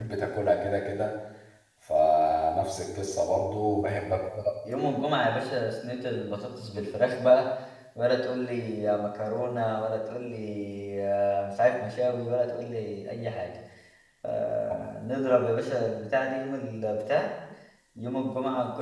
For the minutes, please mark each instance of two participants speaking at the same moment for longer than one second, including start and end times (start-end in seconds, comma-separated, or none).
none